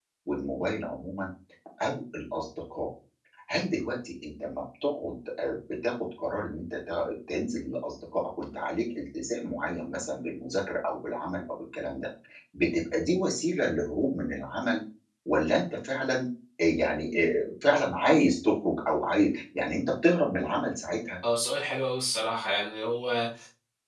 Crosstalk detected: No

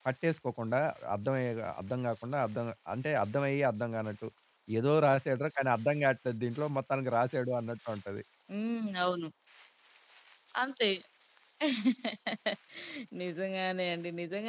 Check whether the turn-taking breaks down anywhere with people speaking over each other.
No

